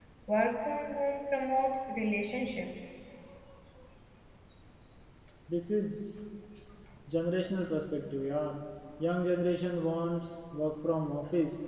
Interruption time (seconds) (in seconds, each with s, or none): none